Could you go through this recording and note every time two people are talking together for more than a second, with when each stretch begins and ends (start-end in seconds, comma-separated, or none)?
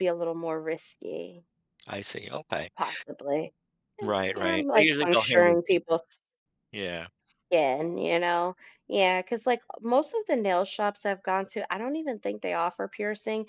4.0-5.8